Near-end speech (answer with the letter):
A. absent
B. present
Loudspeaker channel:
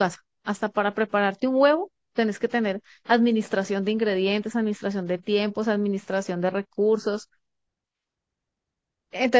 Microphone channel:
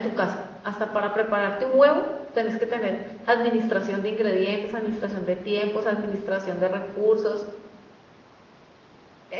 A